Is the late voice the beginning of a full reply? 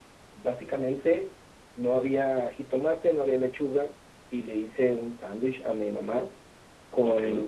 No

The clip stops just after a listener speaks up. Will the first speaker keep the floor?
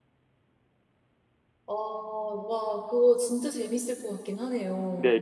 No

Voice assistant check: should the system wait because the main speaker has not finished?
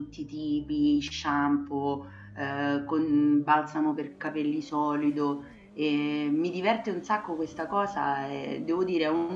Yes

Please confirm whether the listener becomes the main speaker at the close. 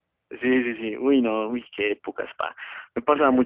No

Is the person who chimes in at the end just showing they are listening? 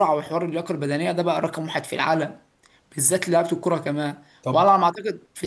Yes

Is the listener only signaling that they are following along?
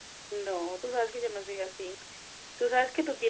Yes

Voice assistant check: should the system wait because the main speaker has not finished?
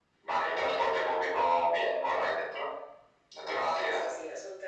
No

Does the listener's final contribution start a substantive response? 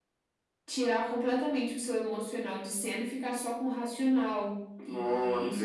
Yes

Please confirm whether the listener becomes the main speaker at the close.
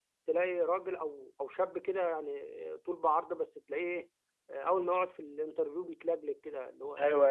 Yes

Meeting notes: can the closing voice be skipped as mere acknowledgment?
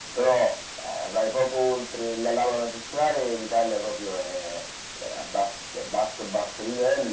Yes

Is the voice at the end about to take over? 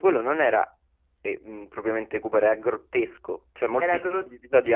No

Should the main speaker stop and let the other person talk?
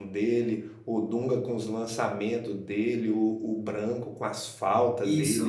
Yes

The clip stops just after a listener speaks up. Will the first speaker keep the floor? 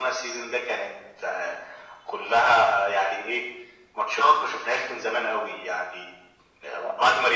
Yes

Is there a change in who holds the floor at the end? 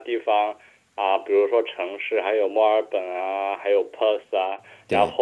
No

